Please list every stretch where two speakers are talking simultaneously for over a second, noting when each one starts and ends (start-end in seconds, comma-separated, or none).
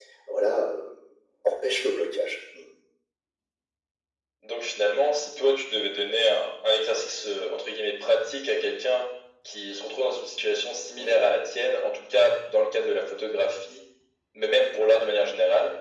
none